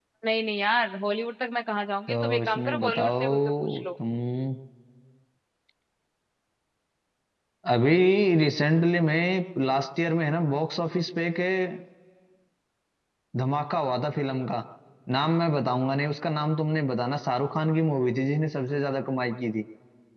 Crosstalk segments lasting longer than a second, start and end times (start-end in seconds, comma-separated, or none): 2.1-3.8